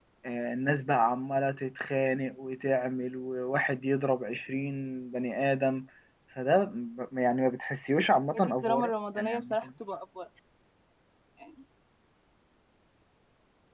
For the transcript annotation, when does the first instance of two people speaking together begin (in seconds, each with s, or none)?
8.3 s